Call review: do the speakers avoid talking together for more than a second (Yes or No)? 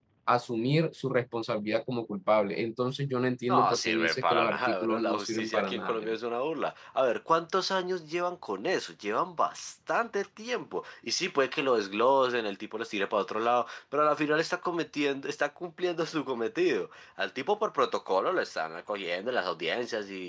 No